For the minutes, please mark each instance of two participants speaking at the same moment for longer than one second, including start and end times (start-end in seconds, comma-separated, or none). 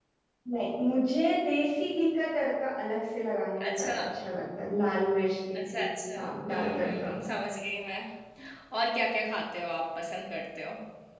5.6-7.1